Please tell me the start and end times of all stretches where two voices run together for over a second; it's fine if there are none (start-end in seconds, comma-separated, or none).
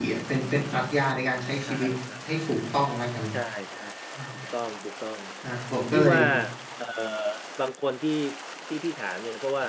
none